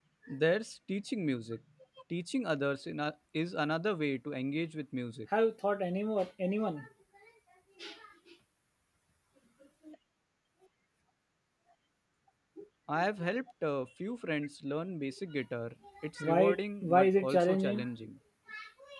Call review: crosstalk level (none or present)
present